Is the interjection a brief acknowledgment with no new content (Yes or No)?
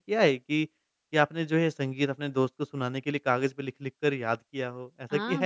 No